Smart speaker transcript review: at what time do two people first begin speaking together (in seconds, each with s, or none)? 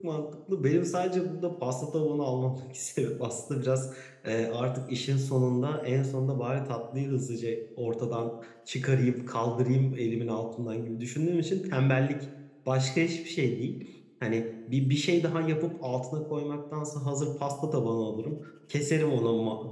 none